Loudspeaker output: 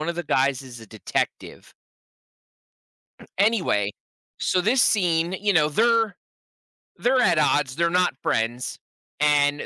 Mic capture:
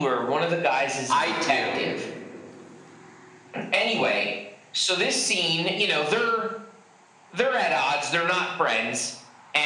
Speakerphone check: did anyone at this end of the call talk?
Yes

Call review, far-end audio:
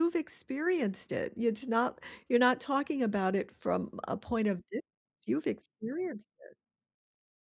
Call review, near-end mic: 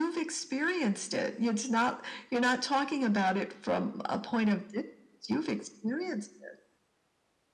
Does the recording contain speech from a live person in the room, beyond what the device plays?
No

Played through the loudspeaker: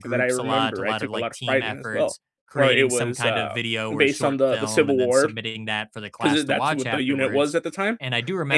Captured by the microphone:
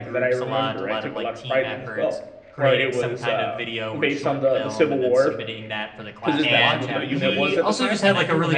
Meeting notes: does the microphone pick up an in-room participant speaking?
Yes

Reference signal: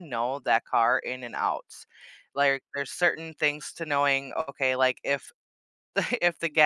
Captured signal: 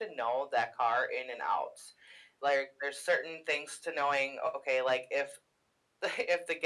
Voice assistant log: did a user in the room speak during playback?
No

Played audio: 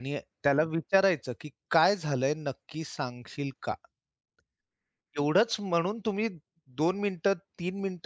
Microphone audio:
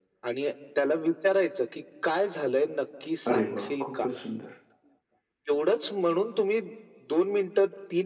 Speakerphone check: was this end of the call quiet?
No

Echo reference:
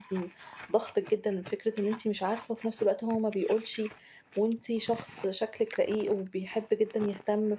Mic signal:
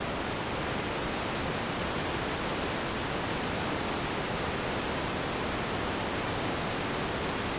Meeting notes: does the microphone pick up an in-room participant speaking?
No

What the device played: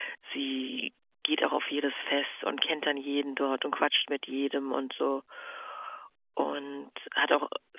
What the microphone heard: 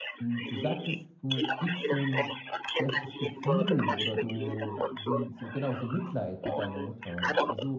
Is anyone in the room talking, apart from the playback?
Yes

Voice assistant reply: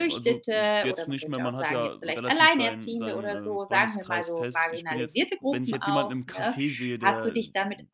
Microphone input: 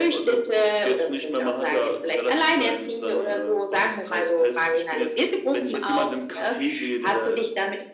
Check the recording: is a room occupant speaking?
No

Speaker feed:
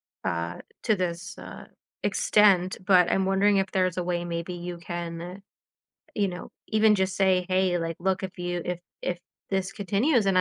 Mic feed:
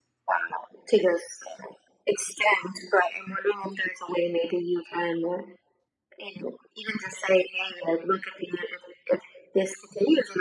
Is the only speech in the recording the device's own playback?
Yes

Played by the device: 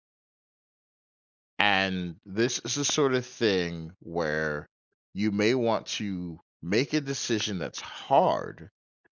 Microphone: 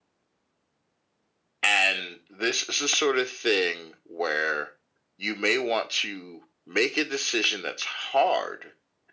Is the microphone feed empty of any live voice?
Yes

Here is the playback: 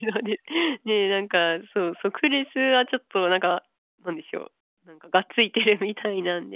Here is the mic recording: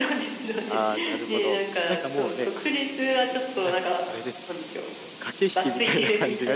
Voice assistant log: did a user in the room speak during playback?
Yes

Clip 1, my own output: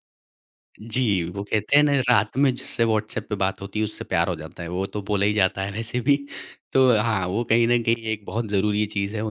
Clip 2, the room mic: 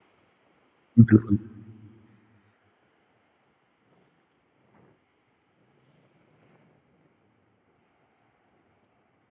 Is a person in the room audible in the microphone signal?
Yes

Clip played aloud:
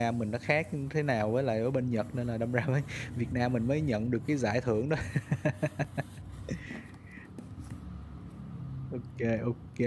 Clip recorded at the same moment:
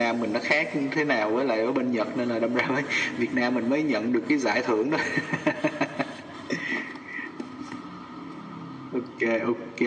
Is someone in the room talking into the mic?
No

